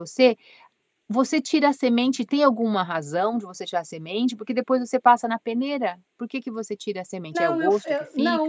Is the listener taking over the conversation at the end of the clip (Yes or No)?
Yes